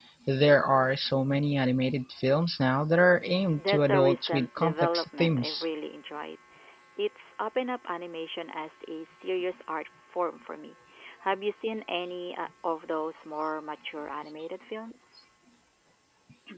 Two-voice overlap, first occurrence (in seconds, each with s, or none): 3.6 s